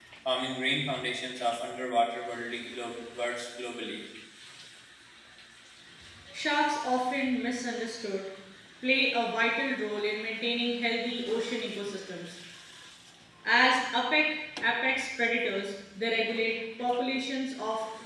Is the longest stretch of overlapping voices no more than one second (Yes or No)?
Yes